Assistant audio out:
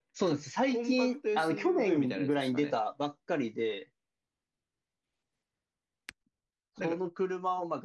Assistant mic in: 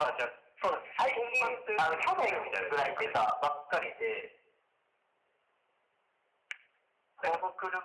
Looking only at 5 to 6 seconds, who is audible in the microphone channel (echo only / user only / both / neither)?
neither